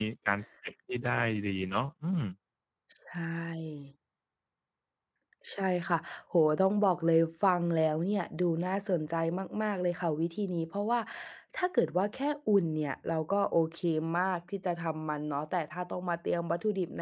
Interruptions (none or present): none